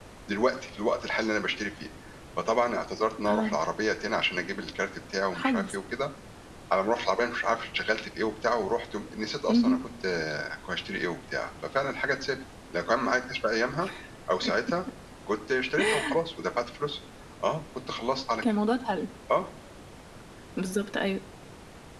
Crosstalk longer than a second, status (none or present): none